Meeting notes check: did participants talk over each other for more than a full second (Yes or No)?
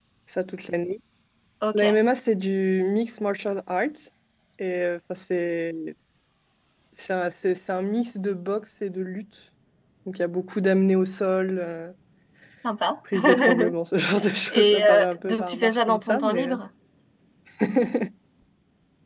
Yes